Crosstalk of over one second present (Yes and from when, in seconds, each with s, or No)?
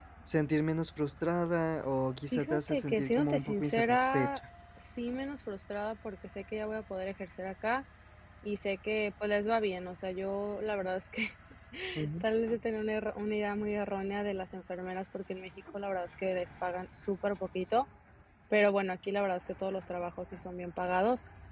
Yes, from 2.3 s